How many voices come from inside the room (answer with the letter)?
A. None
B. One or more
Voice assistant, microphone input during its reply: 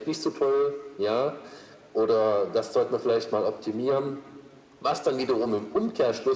A